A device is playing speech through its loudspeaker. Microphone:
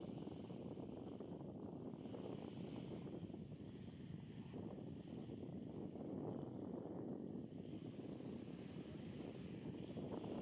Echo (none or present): none